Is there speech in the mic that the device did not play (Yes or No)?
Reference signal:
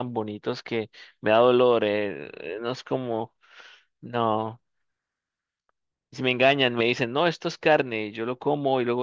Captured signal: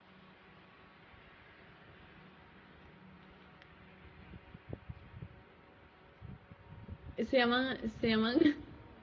Yes